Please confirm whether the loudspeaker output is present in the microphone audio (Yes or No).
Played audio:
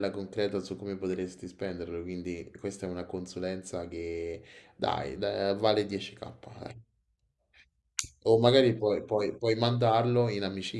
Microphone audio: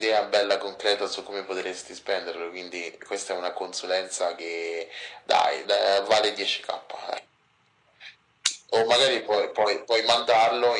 Yes